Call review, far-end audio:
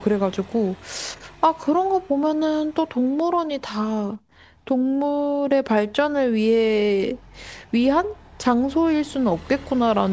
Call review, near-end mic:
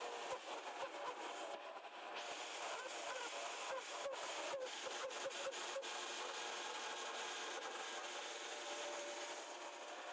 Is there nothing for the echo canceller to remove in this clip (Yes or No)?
Yes